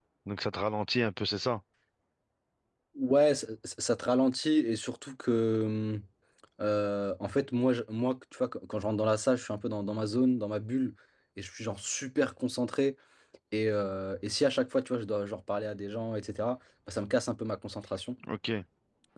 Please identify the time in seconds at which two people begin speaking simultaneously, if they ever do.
none

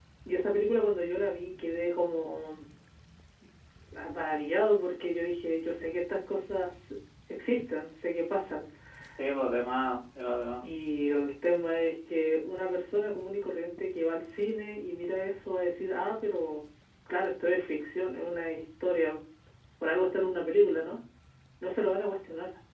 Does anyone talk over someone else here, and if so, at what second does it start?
none

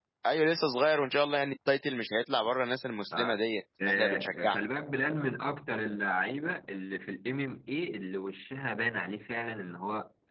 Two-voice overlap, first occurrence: 3.1 s

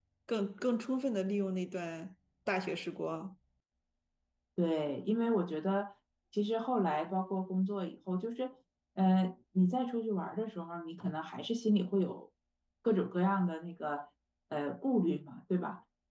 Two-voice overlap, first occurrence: none

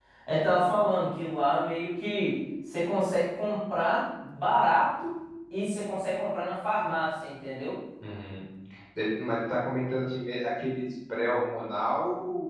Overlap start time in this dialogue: none

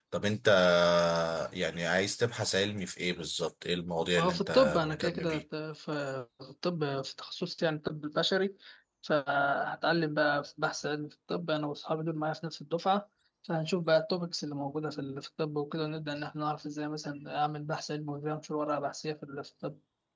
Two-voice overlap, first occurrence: 4.2 s

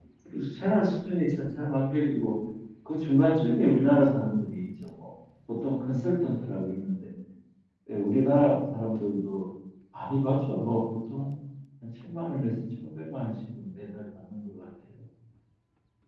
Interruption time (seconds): none

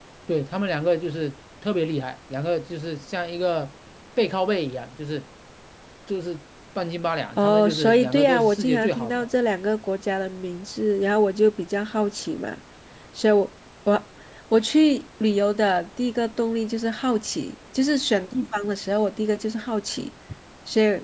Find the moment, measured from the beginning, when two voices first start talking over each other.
7.4 s

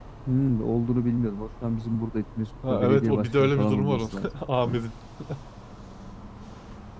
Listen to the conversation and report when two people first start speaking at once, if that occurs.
2.6 s

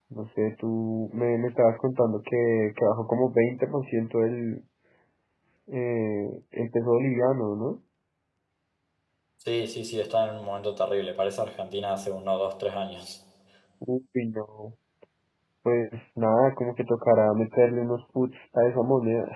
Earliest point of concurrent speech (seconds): none

